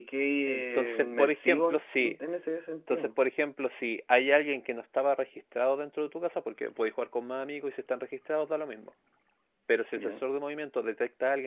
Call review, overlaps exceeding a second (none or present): present